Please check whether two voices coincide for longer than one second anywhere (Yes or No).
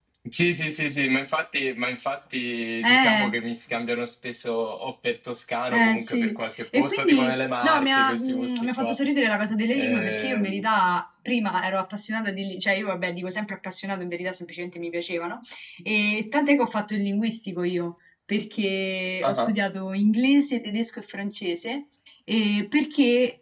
Yes